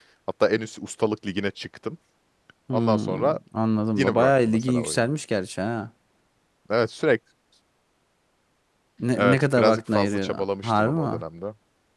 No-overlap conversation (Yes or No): No